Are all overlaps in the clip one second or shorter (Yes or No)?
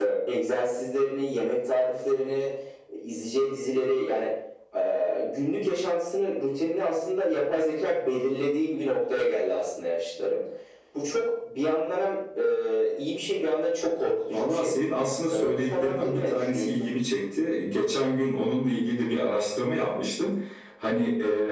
No